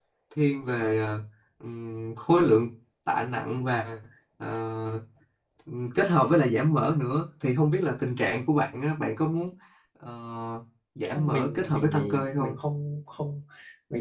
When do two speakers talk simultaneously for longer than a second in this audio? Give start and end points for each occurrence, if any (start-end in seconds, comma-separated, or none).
11.2-12.5